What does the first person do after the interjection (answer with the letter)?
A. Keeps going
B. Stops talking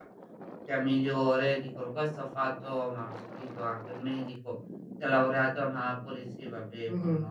B